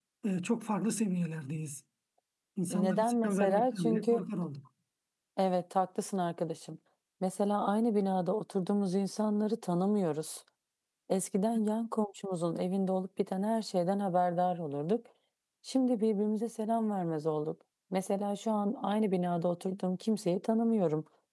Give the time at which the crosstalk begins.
2.7 s

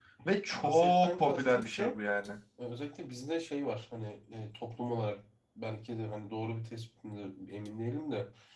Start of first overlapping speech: 0.6 s

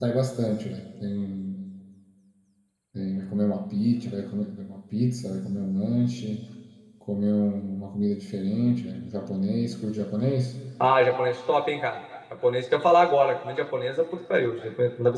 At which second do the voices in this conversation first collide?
none

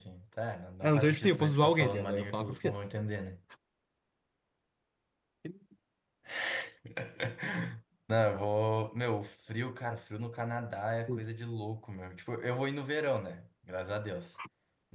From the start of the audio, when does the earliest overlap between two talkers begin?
0.8 s

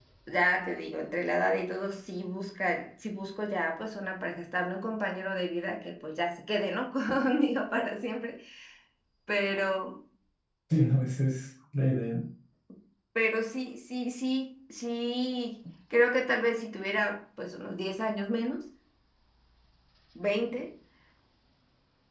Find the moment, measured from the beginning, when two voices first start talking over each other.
none

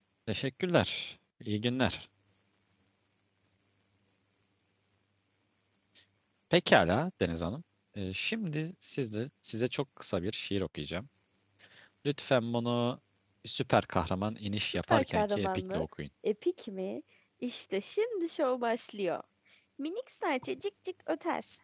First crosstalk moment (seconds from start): 14.6 s

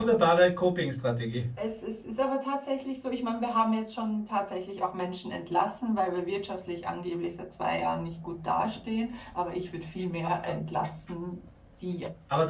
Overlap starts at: none

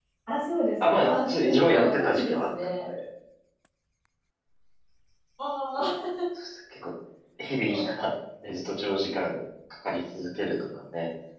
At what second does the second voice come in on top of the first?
0.8 s

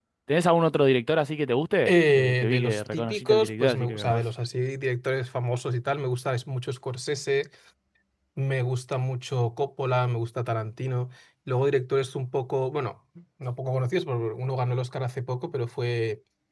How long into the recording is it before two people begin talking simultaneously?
1.9 s

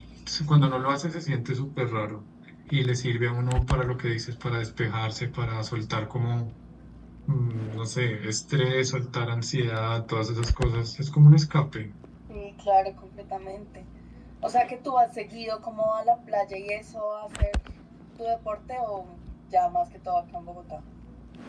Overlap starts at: none

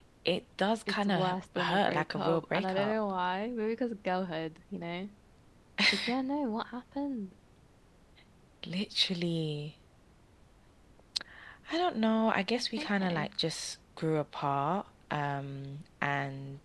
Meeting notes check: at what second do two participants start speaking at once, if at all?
0.9 s

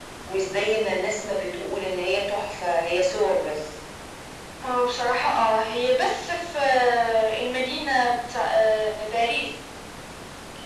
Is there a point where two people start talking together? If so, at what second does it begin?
none

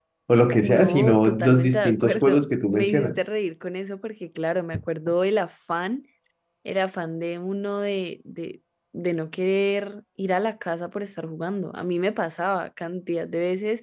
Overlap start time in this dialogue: 0.6 s

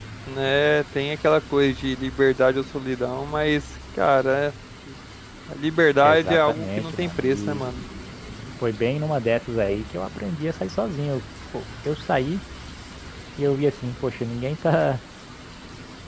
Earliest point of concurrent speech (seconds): 6.0 s

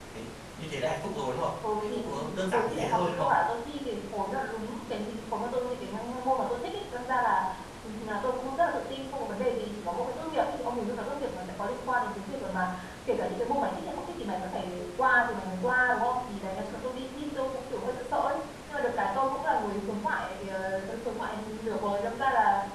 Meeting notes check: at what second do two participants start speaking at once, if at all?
1.6 s

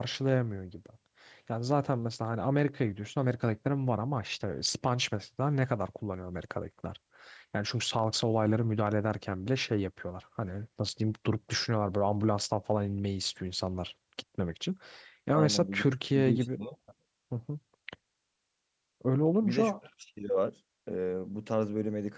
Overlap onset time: 15.3 s

